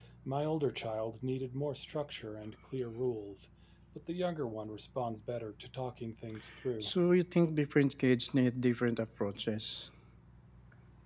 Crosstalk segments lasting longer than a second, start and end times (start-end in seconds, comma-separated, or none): none